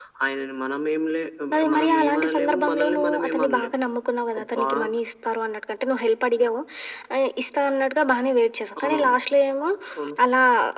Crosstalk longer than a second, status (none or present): present